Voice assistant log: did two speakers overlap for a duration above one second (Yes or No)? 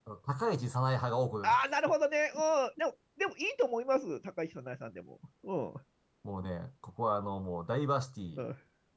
No